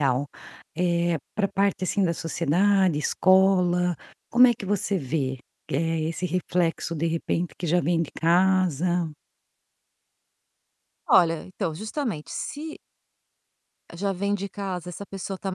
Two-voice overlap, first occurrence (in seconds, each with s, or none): none